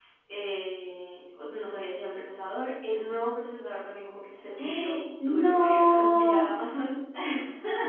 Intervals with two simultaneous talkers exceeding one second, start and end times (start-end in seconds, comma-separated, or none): 4.6-6.5